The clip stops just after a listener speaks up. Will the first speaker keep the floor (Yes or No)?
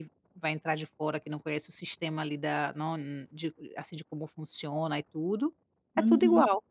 No